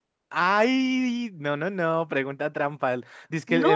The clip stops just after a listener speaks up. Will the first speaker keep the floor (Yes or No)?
Yes